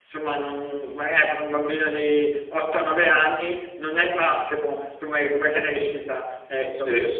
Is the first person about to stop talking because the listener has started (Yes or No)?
Yes